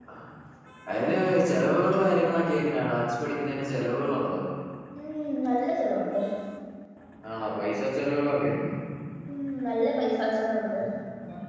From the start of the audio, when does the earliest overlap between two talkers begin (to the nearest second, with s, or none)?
none